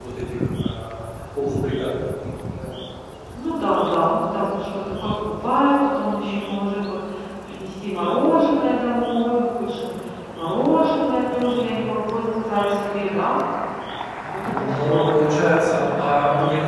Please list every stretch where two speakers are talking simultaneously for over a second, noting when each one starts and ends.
14.4-15.8

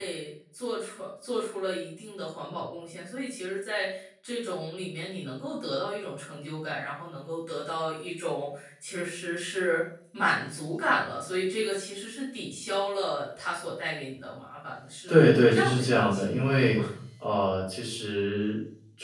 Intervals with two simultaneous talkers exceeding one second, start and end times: 15.1-16.8

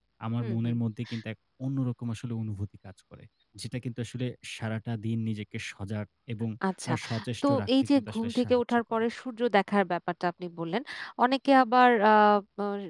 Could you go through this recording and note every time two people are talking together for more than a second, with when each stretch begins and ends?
7.4-9.0

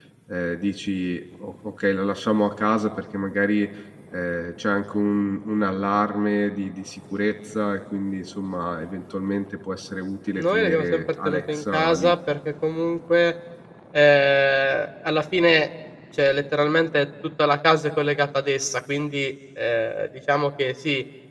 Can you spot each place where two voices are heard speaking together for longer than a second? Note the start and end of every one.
10.4-12.1

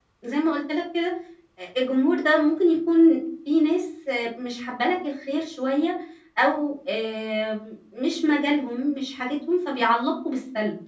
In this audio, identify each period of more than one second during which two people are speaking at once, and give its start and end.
none

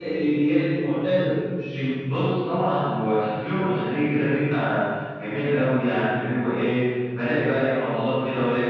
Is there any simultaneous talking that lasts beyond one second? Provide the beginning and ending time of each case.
none

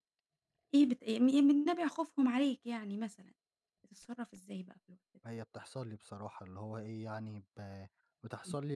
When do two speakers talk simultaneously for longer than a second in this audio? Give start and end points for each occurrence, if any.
none

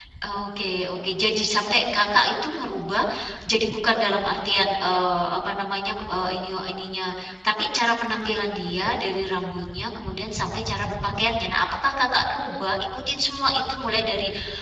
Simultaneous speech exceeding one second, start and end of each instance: none

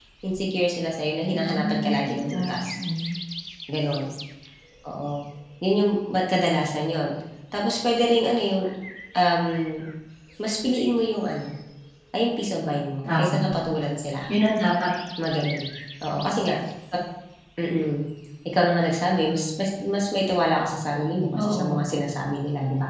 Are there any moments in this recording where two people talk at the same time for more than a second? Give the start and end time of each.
1.3-2.7

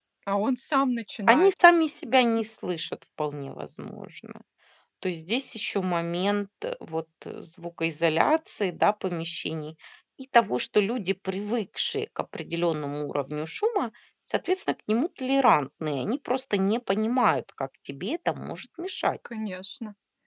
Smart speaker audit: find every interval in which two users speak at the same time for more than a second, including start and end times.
none

